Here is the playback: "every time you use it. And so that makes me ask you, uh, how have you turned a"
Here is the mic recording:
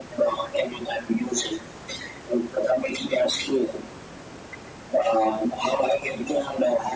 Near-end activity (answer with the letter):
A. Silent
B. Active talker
A